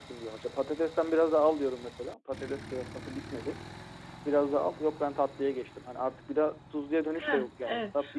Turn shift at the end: Yes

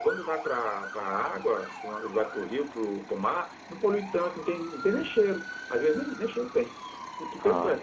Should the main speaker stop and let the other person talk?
No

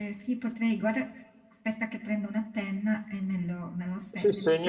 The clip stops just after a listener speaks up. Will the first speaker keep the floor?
No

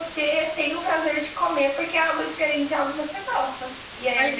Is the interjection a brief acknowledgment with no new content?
Yes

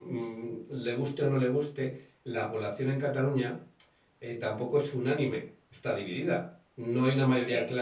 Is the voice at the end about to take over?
No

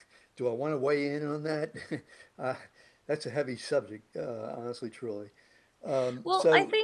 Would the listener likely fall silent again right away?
No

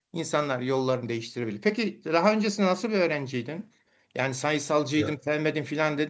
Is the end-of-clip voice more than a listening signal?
No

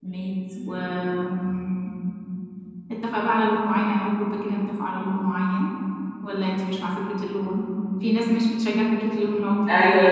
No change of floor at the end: No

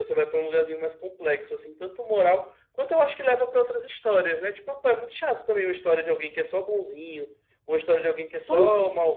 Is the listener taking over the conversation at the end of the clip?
No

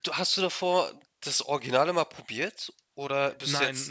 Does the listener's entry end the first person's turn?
Yes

